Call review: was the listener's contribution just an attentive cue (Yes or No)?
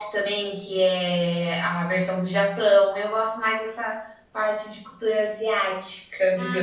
No